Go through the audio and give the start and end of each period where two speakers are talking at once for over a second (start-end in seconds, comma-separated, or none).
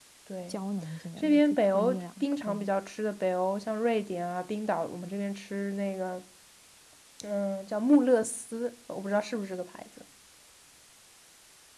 1.2-2.6